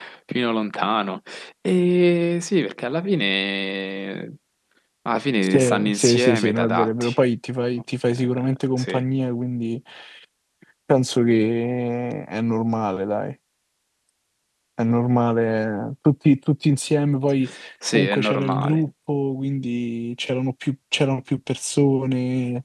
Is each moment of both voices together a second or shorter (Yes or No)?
No